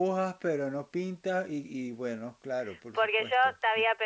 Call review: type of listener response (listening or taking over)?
taking over